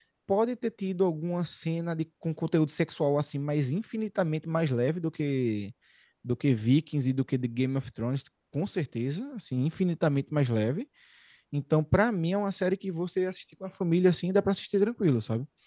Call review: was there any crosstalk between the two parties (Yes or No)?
No